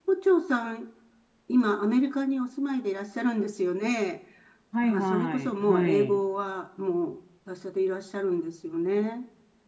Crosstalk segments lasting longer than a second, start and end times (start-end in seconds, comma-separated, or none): 4.8-6.2